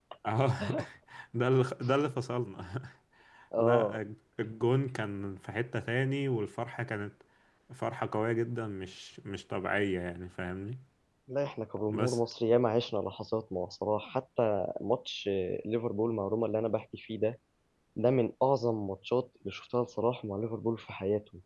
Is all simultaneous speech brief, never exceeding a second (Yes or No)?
Yes